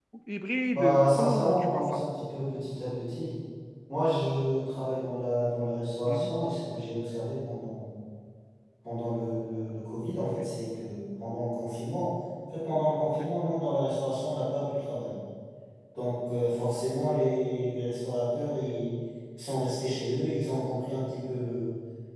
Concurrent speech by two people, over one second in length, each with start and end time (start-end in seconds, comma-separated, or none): 0.7-2.0